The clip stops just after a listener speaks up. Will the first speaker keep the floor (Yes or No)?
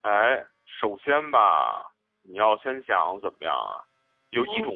Yes